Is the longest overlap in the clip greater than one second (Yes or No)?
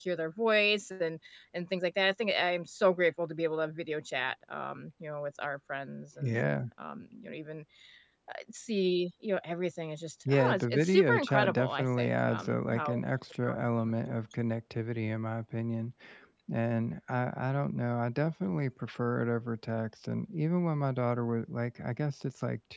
Yes